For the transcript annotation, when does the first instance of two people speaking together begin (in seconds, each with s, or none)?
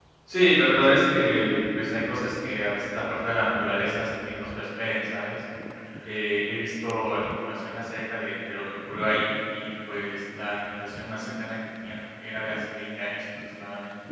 none